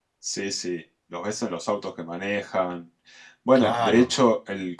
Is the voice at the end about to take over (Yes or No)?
No